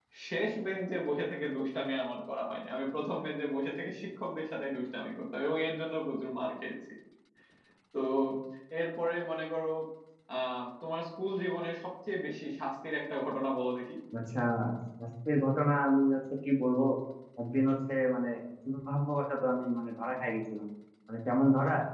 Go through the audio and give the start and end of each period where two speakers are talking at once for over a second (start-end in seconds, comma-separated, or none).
none